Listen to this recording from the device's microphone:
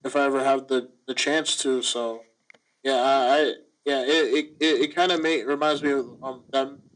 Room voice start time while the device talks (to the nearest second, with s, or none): none